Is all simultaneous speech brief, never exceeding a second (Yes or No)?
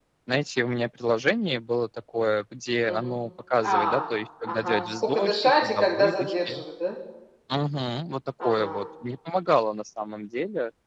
No